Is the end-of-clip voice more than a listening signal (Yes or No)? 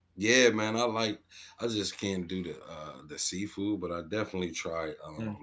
No